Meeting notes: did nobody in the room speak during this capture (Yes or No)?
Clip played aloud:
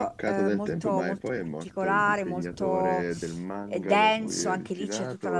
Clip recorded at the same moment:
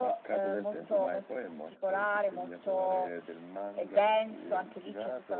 Yes